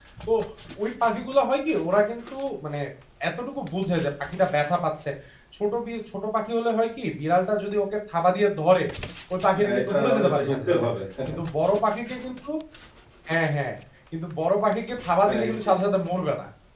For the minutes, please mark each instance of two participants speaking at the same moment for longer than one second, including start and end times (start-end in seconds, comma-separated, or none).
9.6-10.8